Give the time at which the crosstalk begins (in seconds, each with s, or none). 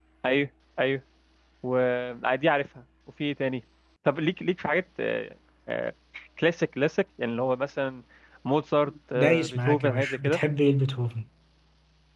9.2 s